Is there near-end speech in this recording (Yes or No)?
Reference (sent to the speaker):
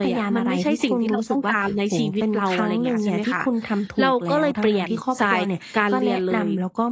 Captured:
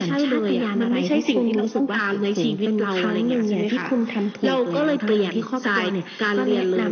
No